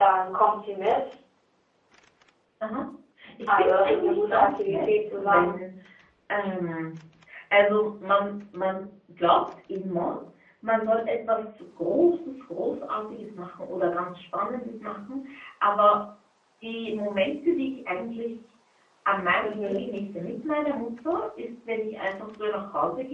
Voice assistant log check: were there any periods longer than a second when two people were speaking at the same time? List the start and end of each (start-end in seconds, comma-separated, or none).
3.5-5.6